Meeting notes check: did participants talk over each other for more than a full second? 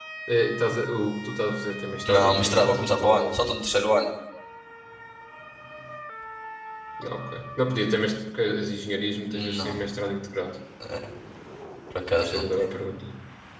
Yes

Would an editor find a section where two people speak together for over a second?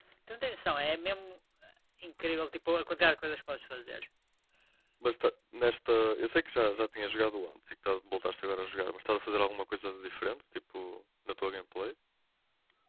No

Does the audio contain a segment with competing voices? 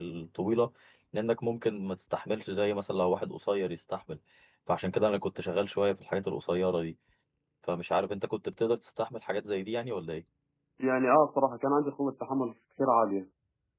No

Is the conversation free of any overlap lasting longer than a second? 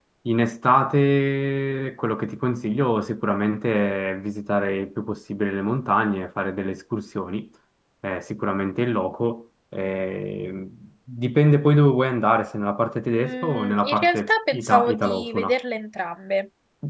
No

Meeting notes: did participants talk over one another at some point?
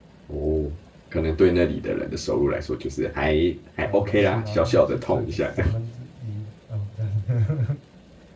Yes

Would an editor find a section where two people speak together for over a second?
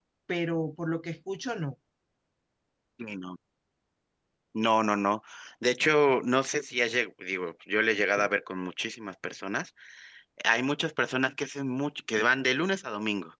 No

